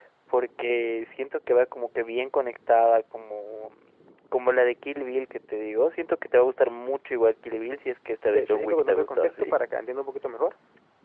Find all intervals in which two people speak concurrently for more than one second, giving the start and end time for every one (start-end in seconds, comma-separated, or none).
8.3-9.6